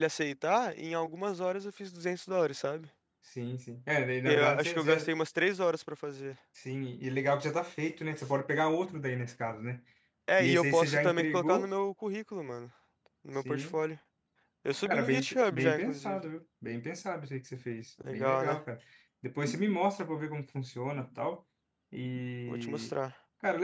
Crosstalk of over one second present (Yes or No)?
Yes